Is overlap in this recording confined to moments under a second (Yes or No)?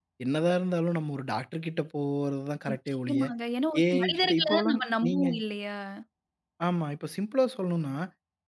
No